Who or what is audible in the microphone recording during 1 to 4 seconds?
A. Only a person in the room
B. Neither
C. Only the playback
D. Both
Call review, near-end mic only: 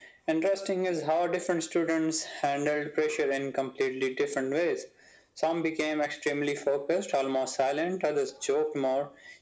C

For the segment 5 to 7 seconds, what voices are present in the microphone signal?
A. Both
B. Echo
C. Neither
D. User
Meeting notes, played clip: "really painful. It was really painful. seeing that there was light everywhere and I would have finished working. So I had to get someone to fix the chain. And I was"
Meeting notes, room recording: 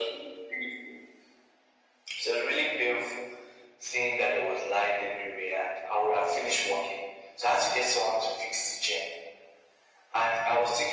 B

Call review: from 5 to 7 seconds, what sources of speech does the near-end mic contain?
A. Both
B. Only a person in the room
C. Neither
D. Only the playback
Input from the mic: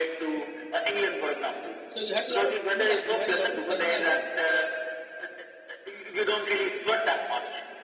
D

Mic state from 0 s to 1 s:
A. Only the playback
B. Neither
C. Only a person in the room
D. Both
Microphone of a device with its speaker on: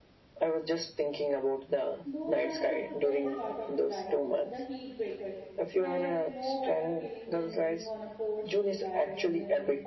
A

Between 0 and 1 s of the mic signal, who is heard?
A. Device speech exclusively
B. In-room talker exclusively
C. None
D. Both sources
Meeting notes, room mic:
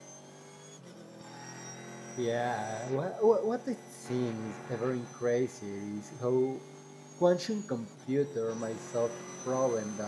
C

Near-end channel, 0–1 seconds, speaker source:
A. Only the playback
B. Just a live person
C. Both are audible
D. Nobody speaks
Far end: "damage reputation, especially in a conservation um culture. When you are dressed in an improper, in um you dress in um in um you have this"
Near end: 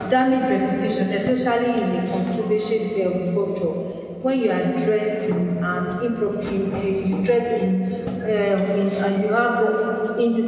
A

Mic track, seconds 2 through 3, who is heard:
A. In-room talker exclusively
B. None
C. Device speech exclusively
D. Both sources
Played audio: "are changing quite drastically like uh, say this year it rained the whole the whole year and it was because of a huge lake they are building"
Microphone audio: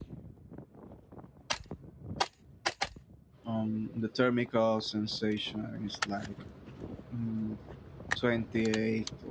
B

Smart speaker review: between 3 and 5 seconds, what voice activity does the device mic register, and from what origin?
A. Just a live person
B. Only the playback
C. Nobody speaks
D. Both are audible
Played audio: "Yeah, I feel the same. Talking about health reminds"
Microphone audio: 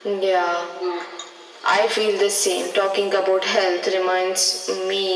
B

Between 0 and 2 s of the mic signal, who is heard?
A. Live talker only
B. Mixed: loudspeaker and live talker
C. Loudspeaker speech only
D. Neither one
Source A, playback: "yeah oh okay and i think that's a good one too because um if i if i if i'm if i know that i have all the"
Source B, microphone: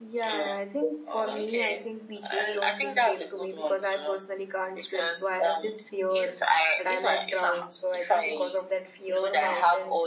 B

